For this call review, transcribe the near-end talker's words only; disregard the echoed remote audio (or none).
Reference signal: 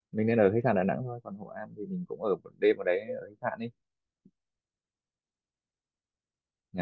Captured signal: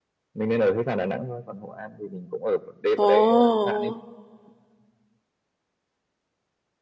ồ,